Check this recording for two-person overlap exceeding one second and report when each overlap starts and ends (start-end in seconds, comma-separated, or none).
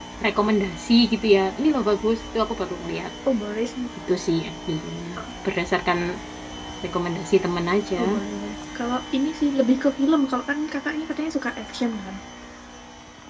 none